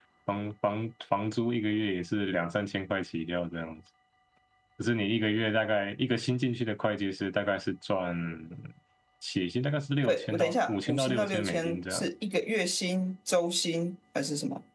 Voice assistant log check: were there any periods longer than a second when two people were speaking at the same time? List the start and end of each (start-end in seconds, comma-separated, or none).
10.0-12.1